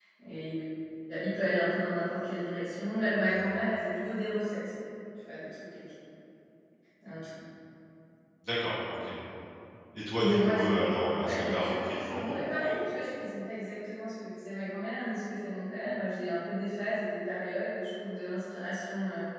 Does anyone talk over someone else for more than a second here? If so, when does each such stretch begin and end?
10.2-12.4

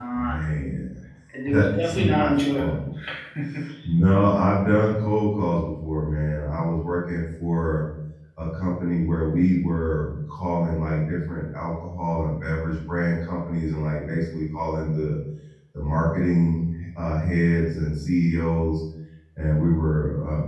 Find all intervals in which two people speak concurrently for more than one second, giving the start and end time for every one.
1.5-2.7

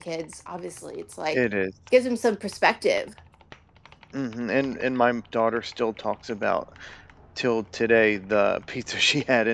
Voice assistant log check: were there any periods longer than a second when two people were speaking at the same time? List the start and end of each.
none

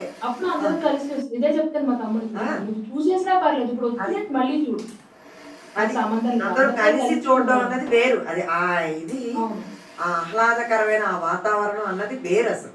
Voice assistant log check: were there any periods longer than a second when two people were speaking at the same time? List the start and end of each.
6.4-7.8

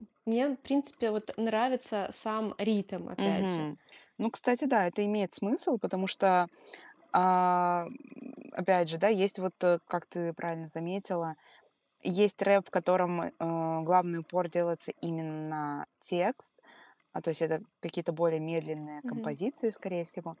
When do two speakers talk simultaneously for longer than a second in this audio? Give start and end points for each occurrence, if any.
none

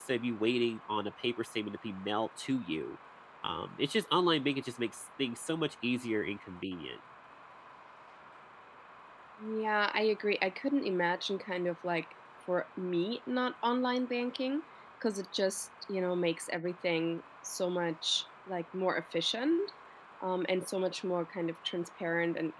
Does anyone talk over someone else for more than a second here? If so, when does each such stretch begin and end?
none

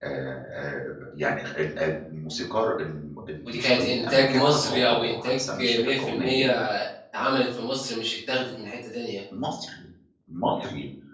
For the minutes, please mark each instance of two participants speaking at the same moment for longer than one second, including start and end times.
3.5-6.5

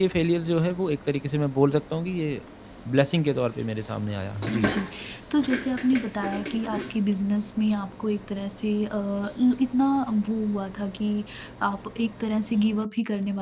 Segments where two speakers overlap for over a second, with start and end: none

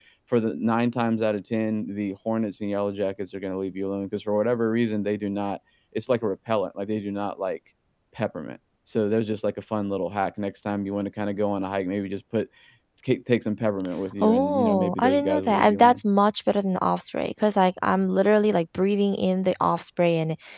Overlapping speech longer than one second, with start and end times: 14.2-15.9

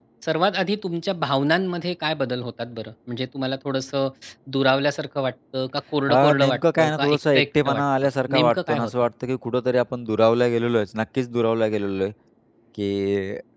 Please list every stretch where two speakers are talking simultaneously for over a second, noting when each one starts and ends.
6.1-8.9

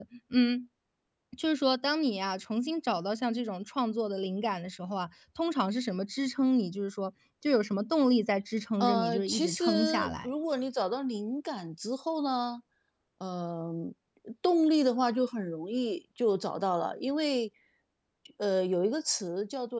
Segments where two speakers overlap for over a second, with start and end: 8.8-10.3

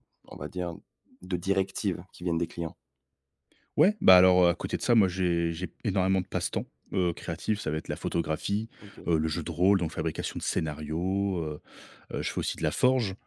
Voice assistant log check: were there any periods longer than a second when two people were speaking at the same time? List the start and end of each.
none

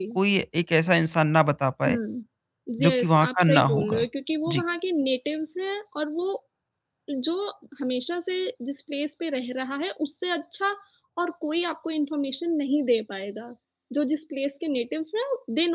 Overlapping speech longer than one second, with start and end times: 2.8-4.0

